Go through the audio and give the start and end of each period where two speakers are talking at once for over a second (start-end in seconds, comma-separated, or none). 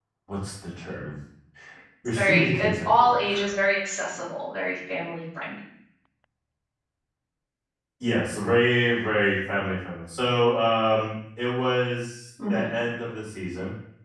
2.2-3.5